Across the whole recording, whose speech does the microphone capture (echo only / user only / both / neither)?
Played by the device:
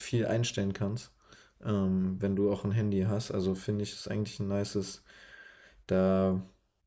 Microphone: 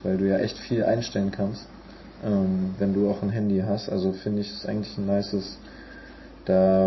echo only